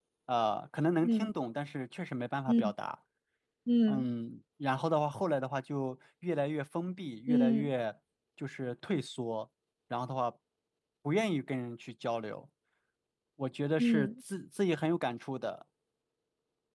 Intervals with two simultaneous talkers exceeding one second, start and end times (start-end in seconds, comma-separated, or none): none